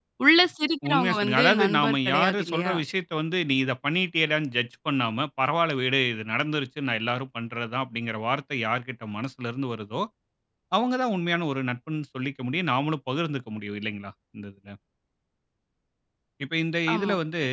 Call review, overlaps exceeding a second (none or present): present